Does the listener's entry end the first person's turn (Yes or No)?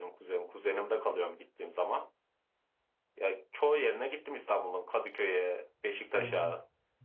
Yes